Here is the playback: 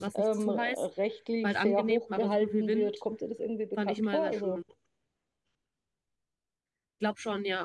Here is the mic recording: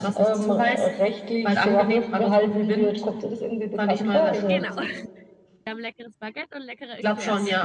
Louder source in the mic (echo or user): echo